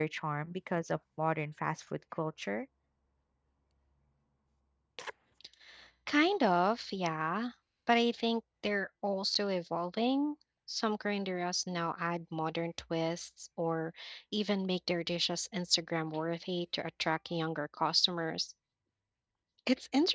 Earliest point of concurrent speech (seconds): none

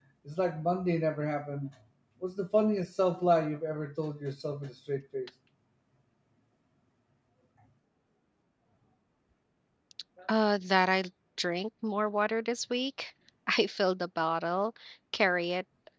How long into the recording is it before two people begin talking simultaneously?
none

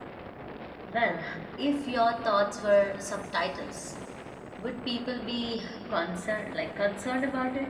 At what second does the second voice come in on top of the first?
none

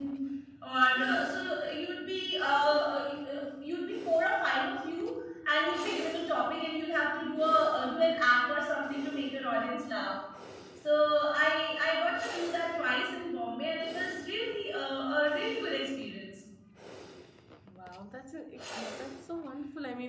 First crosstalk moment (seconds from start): none

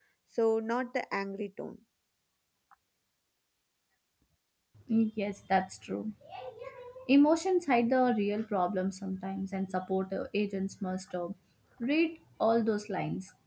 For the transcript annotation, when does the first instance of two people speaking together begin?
none

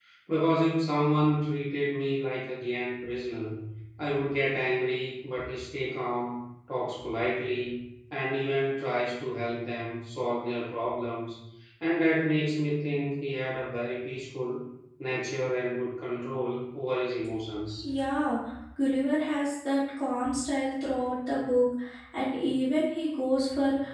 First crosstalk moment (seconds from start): none

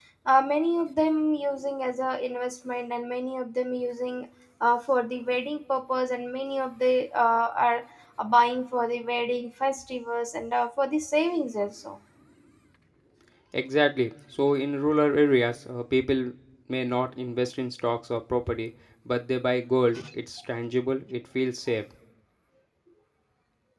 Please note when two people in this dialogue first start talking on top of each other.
none

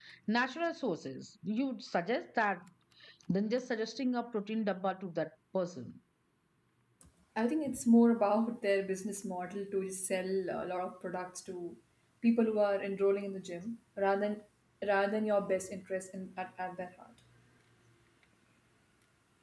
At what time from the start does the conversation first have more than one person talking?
none

